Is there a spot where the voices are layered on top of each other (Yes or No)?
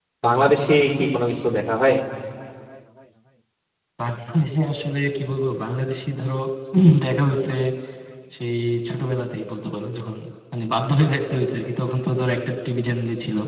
No